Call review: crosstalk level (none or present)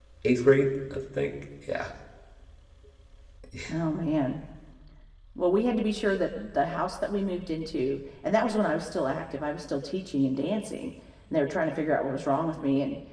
none